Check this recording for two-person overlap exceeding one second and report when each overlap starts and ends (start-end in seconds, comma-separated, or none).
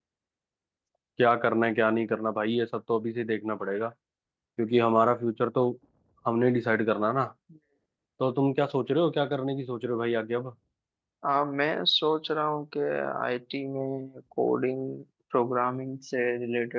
none